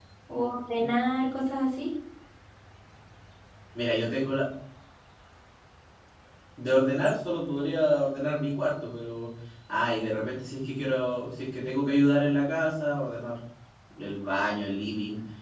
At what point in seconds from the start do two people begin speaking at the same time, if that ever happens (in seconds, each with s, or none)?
none